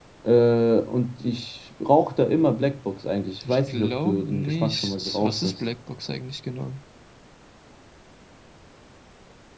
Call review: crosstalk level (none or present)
present